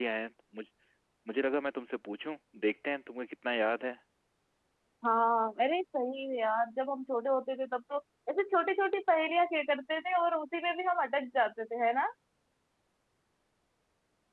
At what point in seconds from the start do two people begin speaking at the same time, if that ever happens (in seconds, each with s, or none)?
none